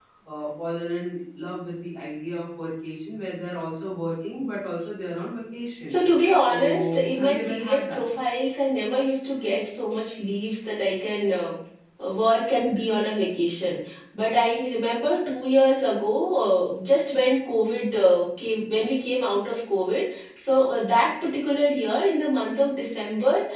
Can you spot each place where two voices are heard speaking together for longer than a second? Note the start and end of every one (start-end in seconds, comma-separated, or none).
6.4-8.1